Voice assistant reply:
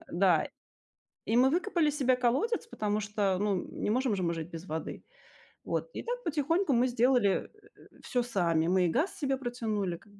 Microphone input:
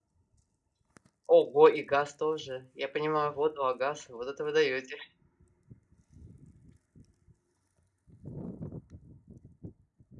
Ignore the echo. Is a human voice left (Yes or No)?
Yes